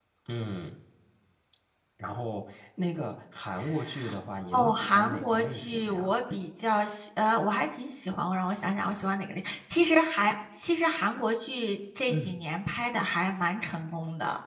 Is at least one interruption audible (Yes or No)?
Yes